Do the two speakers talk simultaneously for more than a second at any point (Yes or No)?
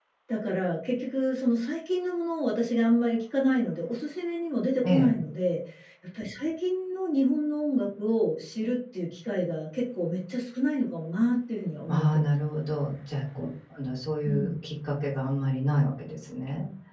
No